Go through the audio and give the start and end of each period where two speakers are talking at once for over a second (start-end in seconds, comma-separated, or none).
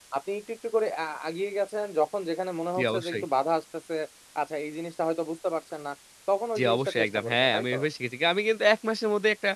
6.6-7.8